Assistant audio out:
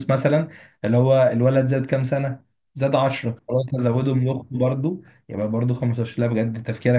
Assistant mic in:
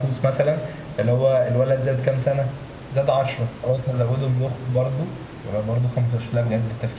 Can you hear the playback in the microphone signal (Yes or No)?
Yes